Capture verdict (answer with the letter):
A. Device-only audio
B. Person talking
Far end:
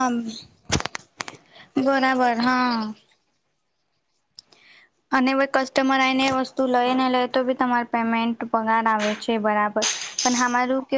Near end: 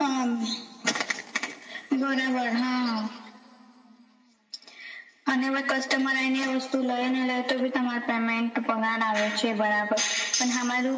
A